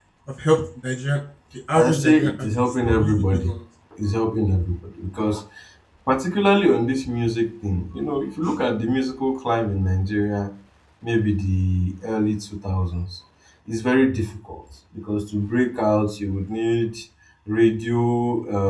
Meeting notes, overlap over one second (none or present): present